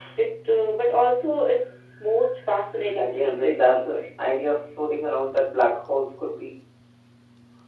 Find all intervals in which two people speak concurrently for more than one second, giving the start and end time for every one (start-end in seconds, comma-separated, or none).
2.8-4.0